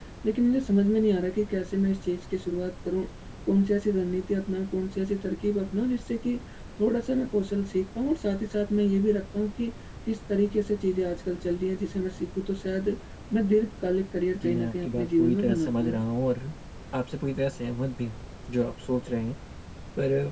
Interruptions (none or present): present